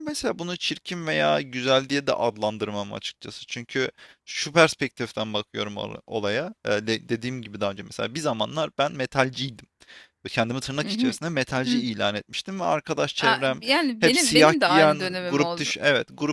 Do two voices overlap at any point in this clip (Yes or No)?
Yes